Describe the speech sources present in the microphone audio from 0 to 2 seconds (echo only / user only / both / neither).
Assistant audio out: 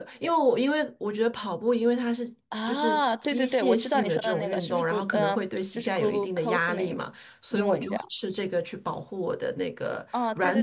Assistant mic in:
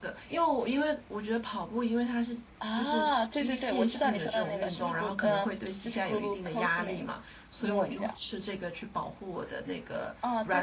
echo only